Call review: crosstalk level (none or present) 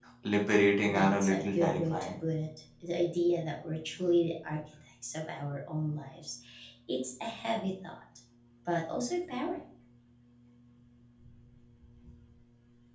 present